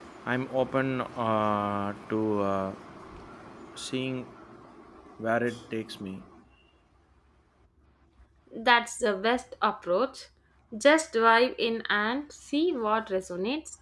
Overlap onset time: none

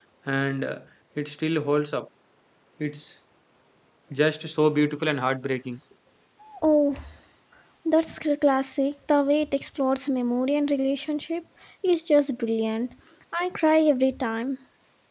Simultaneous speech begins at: none

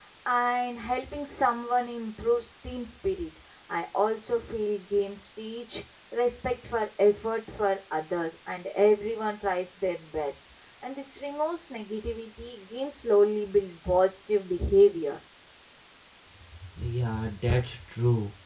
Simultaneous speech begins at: none

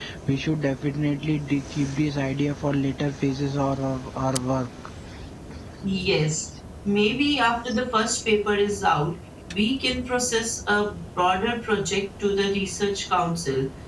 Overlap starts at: none

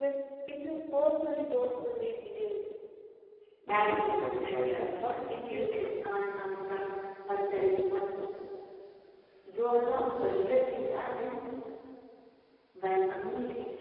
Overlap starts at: 3.7 s

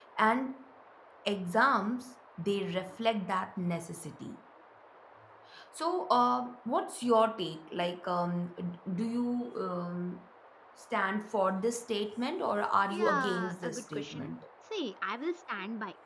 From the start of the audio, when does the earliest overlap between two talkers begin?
12.9 s

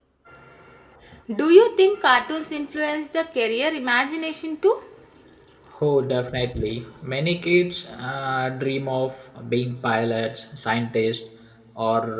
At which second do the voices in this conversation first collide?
none

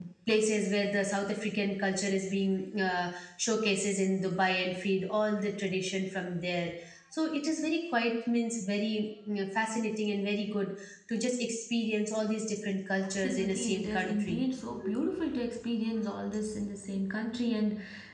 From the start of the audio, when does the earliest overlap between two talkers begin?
13.0 s

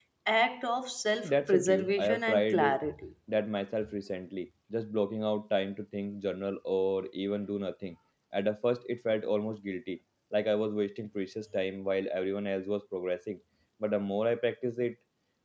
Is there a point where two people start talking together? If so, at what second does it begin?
1.2 s

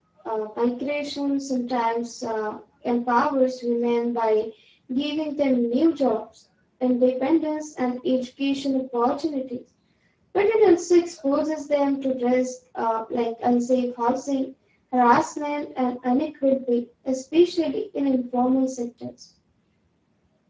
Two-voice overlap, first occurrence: none

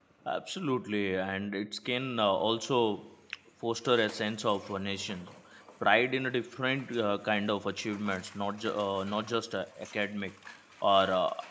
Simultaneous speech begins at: none

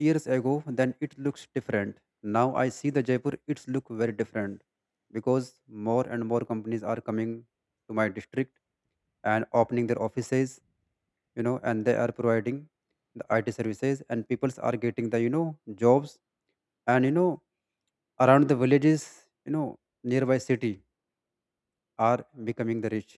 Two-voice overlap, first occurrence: none

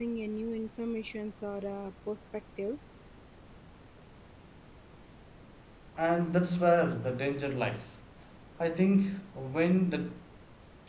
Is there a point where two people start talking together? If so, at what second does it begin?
none

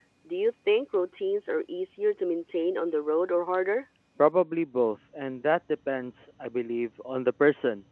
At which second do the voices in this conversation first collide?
none

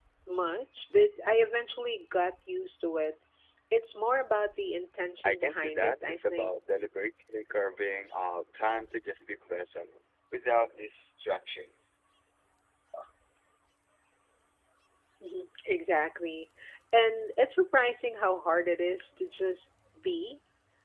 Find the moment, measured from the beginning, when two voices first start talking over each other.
5.2 s

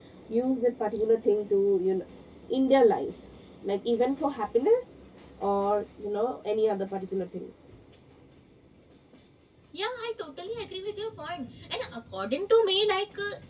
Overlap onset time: none

